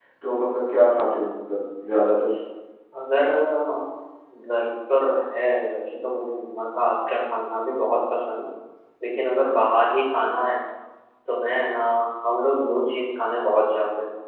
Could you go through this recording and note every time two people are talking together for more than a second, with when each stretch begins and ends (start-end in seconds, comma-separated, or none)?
none